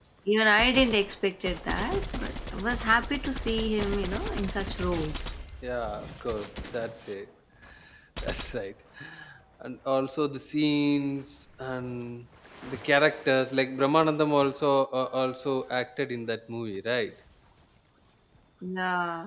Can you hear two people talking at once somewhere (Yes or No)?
No